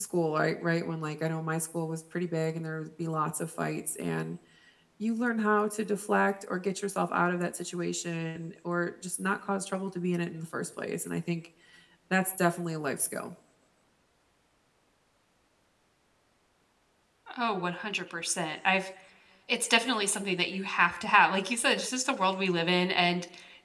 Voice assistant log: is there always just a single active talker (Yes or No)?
Yes